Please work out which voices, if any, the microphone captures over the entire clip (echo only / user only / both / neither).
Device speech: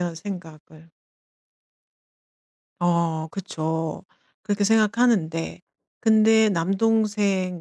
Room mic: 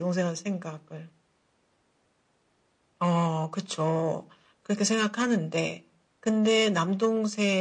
echo only